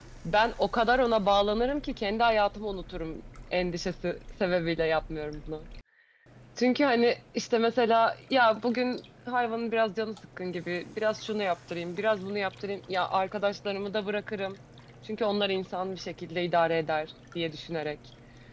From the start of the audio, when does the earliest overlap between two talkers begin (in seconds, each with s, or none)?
none